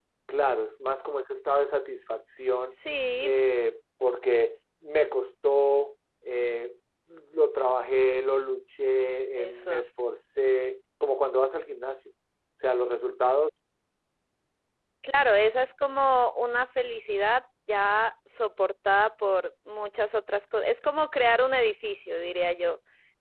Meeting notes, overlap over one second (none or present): none